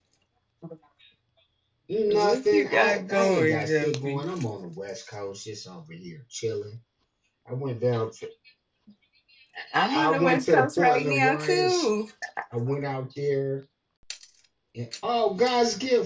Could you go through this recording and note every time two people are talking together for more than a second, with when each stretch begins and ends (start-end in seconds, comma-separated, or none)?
2.1-4.2, 9.7-11.9